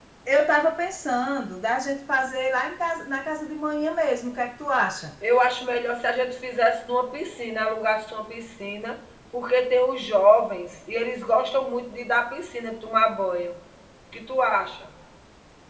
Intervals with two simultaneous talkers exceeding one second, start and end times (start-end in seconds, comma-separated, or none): none